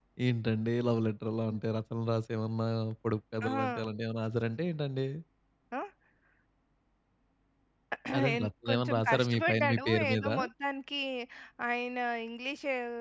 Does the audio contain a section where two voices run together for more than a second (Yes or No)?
Yes